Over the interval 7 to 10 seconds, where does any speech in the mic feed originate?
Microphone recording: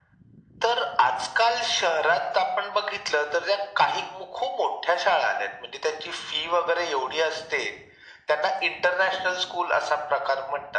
echo only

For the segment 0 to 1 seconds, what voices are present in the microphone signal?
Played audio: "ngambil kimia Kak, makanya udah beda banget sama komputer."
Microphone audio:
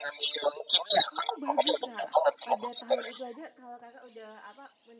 echo only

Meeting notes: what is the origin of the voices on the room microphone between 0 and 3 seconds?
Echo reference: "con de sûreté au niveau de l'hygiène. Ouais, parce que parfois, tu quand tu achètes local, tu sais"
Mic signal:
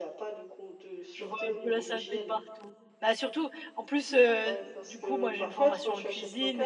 both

